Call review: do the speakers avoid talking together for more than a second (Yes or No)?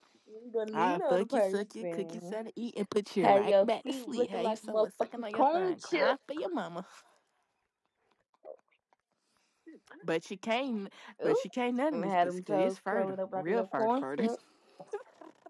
No